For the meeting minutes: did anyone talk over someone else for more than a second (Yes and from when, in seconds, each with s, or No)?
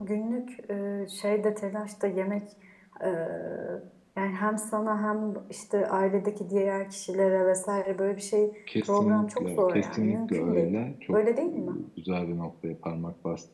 Yes, from 8.7 s